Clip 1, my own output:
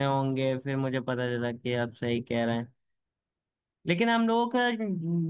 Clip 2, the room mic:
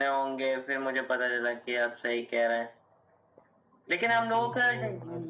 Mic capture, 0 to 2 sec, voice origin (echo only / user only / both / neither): echo only